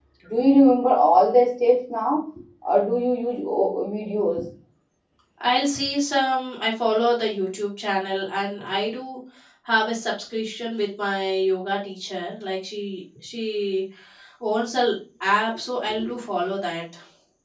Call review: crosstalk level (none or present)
none